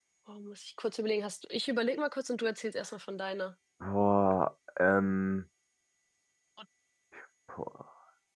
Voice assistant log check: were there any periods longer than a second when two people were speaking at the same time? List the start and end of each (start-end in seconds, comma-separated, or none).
none